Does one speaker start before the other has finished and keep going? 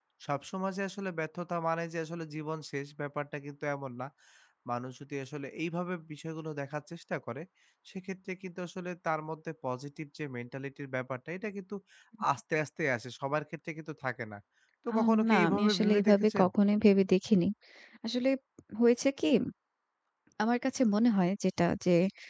Yes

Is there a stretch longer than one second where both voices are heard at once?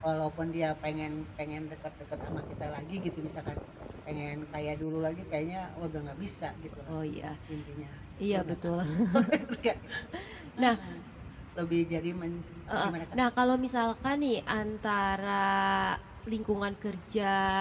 No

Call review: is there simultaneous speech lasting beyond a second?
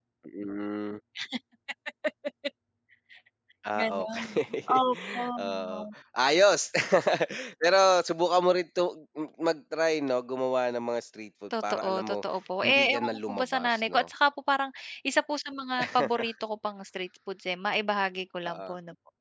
Yes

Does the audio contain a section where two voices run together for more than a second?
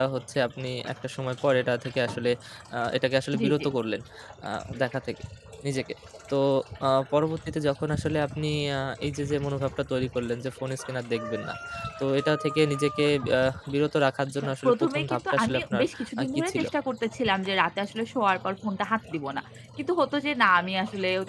Yes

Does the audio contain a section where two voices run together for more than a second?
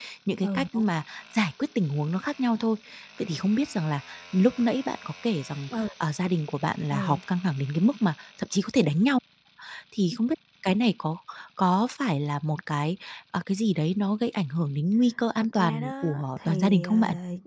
Yes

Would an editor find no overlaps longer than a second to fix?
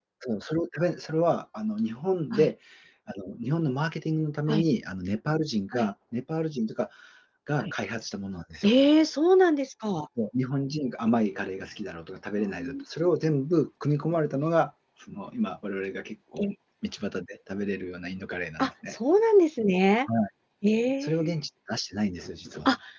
Yes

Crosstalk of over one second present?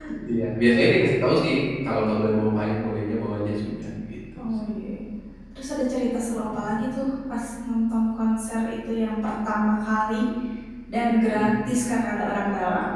No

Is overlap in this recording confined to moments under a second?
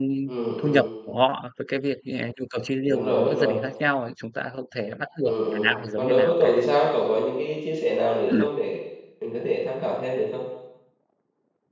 No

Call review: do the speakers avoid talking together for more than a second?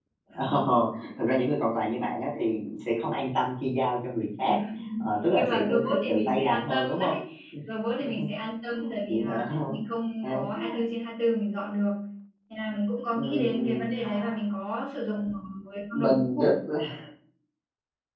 No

